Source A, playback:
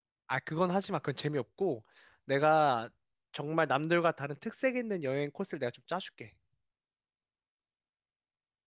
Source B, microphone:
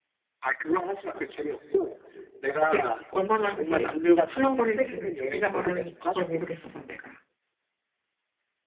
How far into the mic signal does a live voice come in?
3 s

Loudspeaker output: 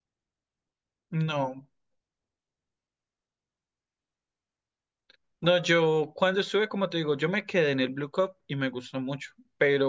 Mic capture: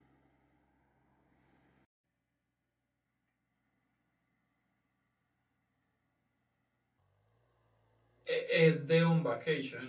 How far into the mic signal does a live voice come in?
8 s

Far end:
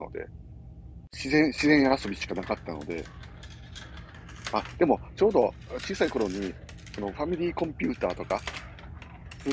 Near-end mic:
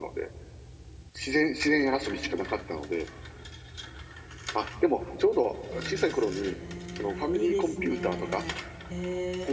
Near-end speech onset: 6 s

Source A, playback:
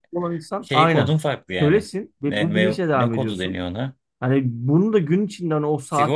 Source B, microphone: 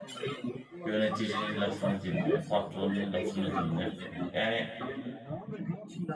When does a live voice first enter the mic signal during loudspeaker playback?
1 s

